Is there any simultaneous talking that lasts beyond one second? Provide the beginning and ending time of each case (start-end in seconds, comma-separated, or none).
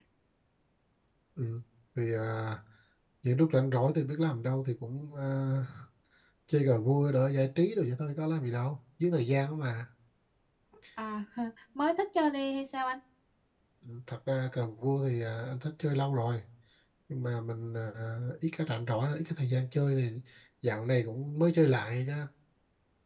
none